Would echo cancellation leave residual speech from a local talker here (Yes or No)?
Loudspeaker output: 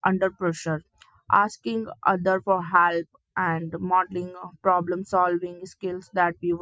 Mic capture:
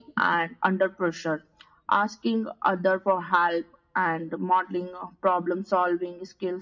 No